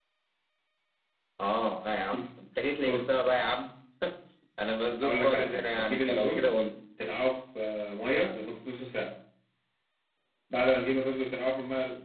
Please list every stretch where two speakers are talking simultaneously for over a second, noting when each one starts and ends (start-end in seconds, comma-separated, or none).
5.0-6.5